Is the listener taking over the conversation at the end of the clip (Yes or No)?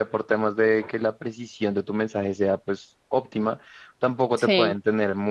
No